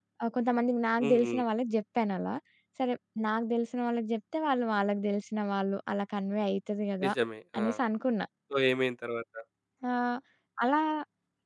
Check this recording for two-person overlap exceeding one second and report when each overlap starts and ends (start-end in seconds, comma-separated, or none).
none